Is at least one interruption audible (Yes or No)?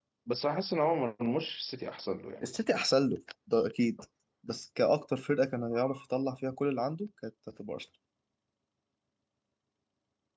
No